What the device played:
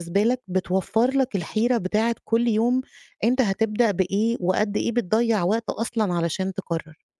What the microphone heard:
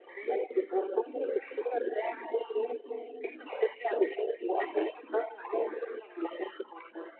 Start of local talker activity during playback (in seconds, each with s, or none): none